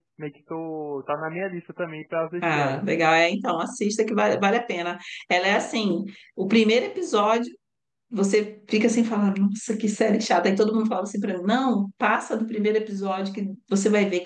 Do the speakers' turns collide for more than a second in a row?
No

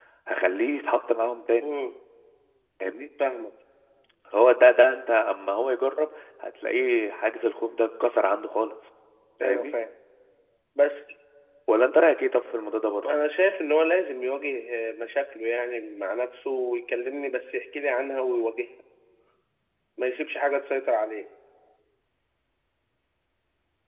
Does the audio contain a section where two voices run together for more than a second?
No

